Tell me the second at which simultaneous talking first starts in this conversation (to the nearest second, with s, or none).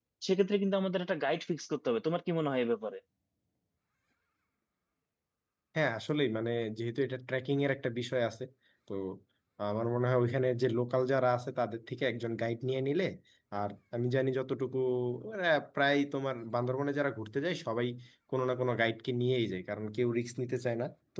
none